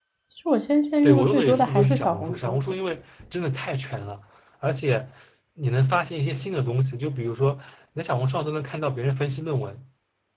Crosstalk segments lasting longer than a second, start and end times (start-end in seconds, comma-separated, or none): 1.0-2.6